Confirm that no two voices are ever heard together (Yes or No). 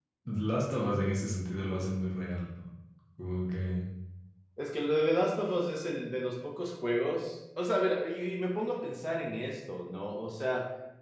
Yes